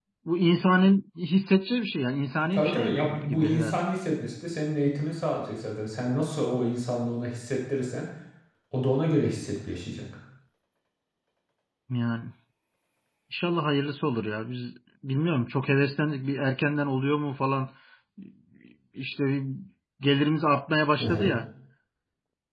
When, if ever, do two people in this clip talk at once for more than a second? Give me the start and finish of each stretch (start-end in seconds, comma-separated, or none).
2.5-3.8